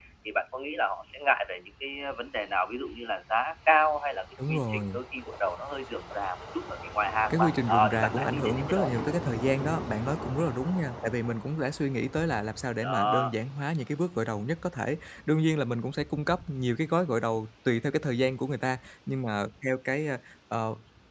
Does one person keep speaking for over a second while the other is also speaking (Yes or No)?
Yes